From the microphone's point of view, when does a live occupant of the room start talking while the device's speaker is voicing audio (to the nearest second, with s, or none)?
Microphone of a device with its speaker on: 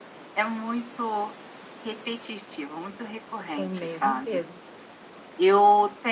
4 s